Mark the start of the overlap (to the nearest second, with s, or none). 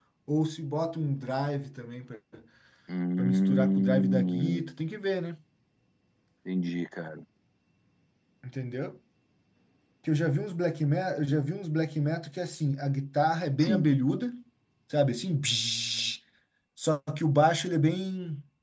3 s